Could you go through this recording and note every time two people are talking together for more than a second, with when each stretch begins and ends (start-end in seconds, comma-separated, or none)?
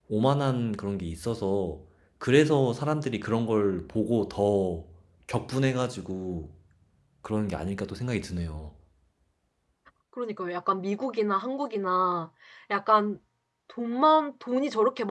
none